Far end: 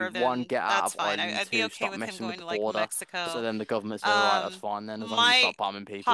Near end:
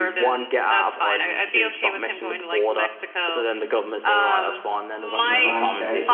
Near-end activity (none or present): present